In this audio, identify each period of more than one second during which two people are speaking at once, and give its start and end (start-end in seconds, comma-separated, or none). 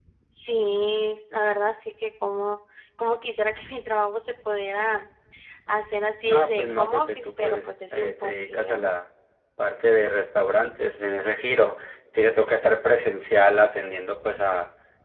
6.2-8.9